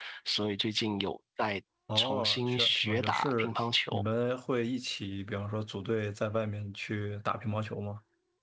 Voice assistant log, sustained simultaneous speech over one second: present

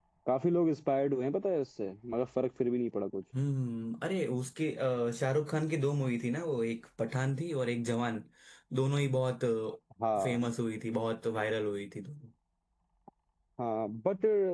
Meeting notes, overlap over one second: none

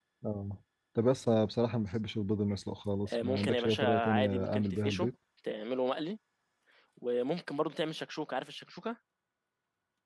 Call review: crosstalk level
present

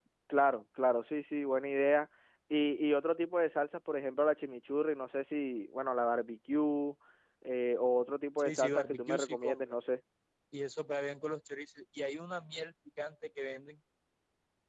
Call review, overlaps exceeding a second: present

